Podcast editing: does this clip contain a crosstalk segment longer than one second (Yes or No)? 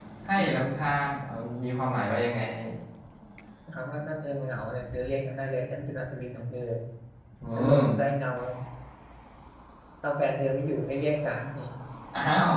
No